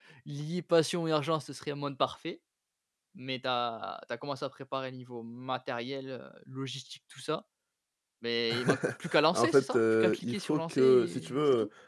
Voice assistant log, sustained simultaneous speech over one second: present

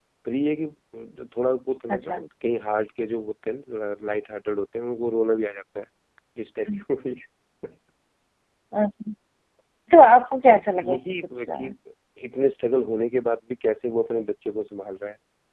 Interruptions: present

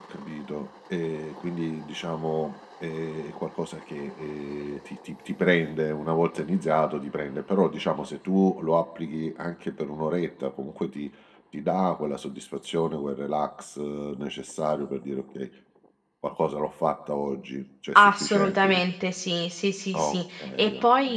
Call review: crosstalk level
present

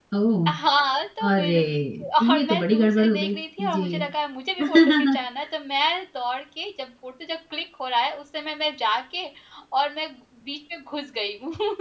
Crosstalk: present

